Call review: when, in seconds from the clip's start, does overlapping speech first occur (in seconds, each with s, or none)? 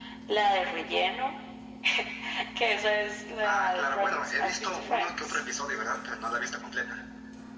3.4 s